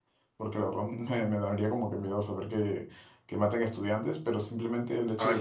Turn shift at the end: No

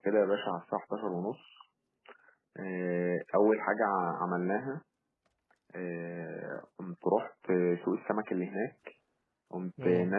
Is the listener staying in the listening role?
Yes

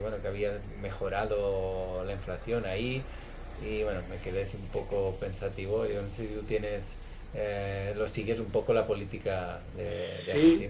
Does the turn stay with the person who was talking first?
No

